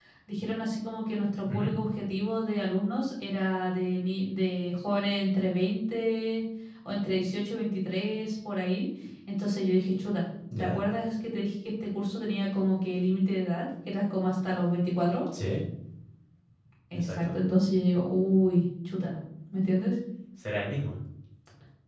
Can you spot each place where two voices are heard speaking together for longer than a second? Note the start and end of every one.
none

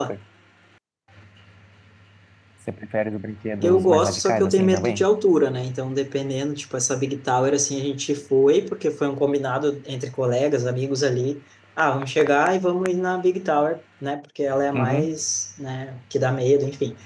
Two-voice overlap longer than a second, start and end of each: 3.6-5.1

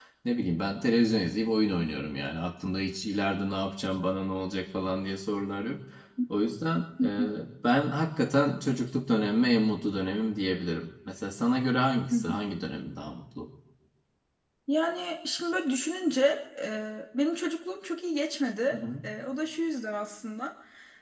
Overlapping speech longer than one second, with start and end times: none

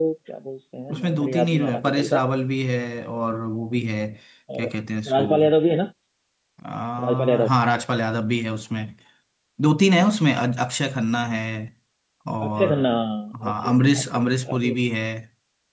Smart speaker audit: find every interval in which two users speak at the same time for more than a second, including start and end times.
0.9-2.2, 13.5-14.8

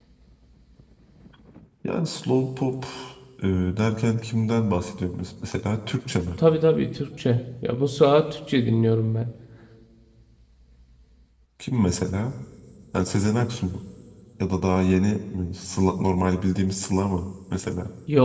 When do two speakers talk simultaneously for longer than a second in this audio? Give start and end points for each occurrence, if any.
none

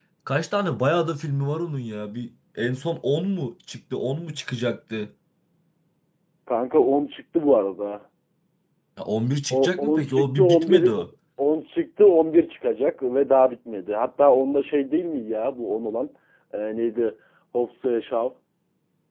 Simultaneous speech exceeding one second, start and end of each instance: 9.5-11.0

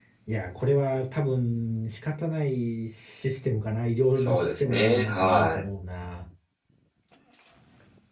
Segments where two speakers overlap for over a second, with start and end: 4.2-5.6

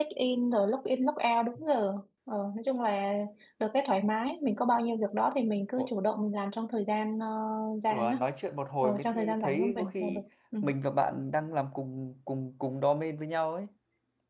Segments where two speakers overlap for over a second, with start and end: 8.8-10.2

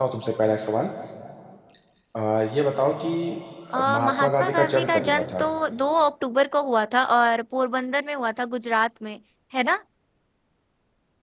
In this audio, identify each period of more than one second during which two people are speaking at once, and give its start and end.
3.9-5.4

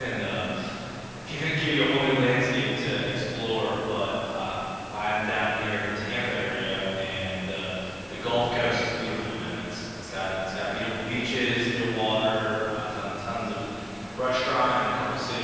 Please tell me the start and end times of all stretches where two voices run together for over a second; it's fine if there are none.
none

